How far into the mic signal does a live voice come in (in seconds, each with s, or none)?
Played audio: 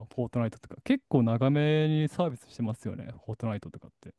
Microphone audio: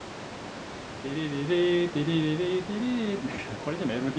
1.0 s